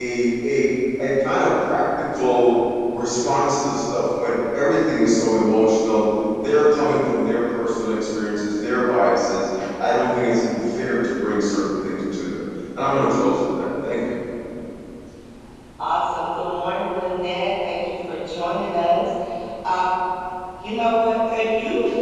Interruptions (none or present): none